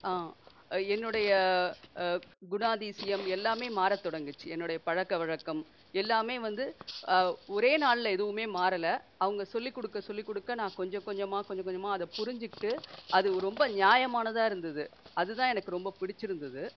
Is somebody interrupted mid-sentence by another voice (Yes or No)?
No